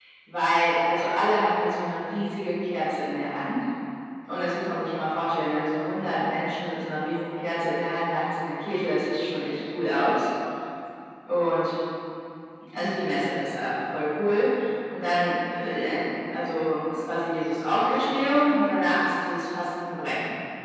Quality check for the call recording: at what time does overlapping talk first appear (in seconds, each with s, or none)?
none